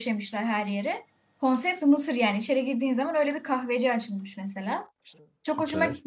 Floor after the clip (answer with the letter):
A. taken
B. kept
B